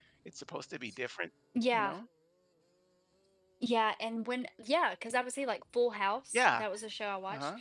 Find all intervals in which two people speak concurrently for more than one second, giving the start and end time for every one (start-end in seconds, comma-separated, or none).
none